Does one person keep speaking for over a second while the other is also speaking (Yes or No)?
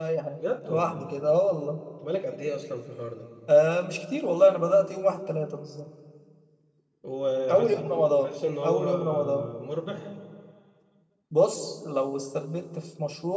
Yes